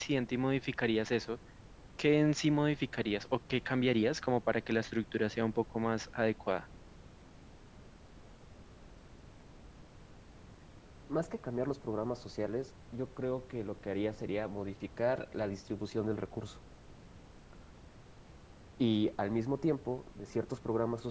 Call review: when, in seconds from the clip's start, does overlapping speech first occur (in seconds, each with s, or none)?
none